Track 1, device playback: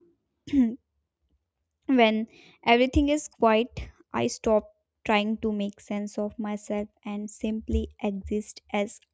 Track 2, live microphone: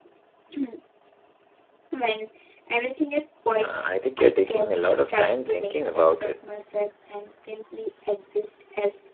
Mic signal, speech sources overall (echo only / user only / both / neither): both